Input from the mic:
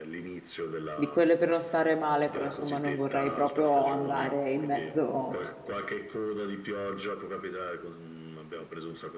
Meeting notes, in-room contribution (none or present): present